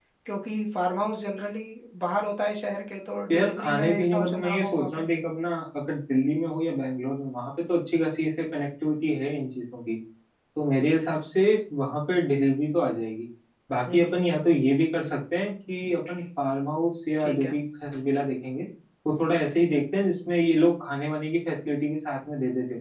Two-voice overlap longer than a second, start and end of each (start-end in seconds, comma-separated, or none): 3.3-5.1